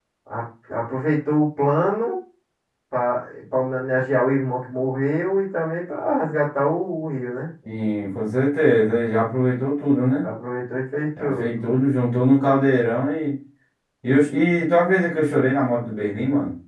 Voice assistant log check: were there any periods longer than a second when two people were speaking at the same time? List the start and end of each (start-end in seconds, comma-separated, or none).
none